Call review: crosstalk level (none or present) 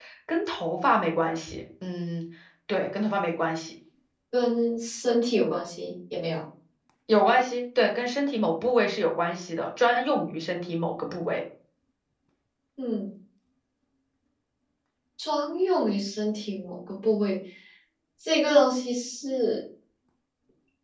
none